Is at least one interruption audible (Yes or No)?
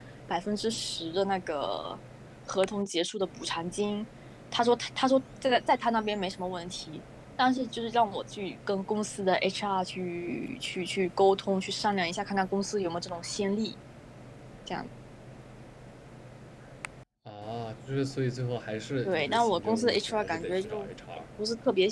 Yes